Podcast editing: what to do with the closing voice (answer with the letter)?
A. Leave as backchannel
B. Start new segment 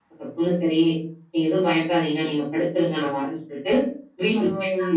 A